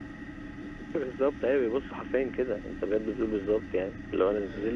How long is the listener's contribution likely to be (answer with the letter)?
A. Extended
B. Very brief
B